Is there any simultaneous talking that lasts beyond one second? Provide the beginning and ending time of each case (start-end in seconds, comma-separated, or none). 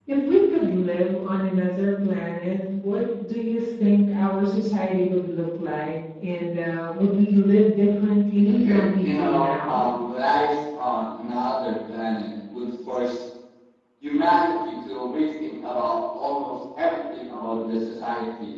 8.6-9.9